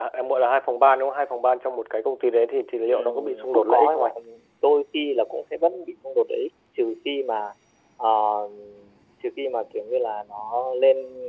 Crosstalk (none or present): present